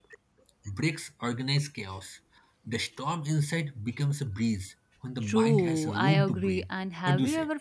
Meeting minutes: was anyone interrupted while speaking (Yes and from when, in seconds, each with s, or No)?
Yes, from 5.2 s